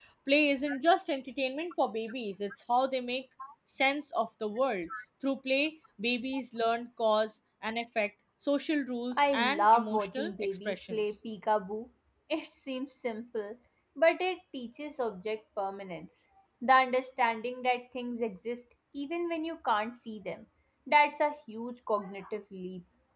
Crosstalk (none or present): present